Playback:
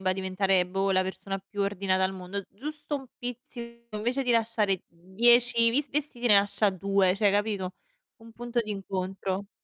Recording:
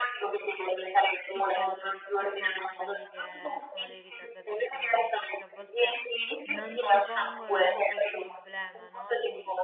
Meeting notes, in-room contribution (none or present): present